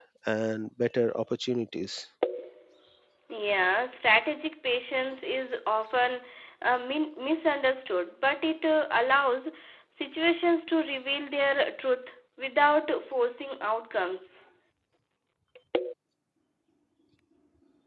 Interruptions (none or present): none